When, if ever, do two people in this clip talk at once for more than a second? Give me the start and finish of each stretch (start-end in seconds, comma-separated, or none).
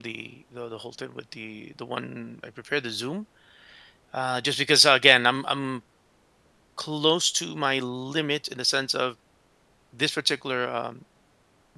none